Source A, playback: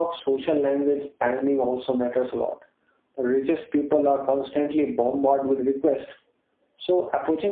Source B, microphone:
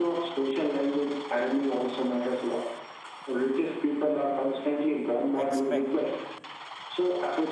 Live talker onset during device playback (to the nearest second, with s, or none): 5 s